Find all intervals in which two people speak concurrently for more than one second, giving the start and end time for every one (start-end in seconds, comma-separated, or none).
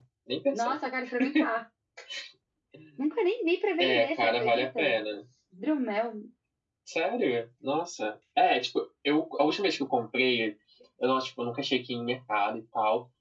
3.8-5.0